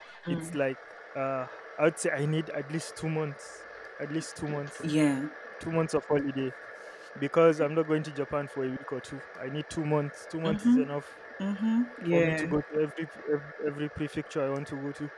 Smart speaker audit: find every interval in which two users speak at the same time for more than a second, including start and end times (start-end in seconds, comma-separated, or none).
none